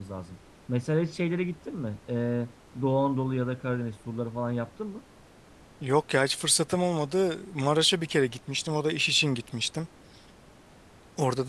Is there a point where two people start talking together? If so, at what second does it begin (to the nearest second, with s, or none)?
none